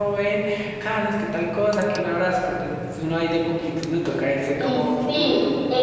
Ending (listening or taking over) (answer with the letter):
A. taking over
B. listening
A